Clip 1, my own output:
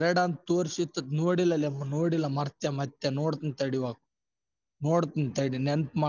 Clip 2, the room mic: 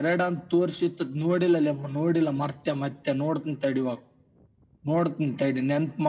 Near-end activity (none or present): none